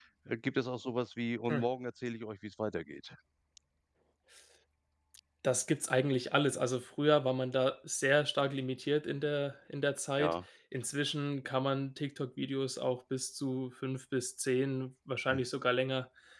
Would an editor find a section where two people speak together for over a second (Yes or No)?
No